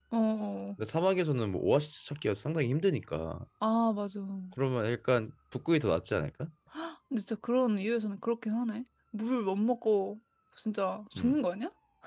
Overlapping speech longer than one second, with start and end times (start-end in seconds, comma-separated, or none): none